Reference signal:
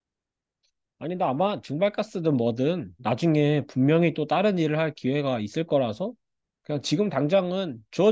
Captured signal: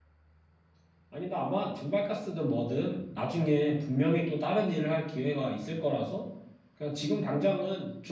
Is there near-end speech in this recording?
No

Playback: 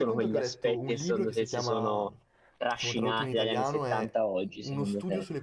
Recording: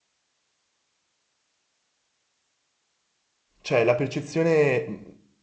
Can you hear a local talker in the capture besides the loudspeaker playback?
Yes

